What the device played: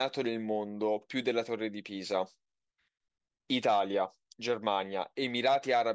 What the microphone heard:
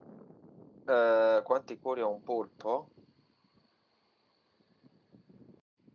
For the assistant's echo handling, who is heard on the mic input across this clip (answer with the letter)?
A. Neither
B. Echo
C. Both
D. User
D